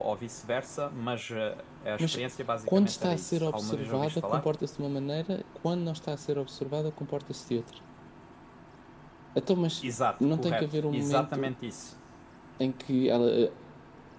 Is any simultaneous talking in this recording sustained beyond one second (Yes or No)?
Yes